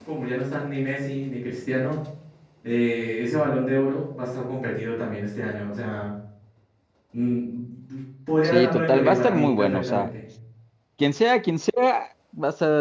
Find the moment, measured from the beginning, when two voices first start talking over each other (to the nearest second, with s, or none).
8 s